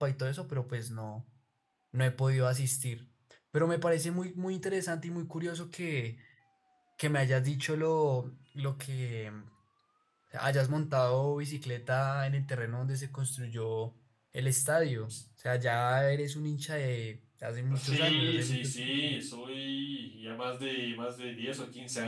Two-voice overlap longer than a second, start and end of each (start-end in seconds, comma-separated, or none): 17.7-19.2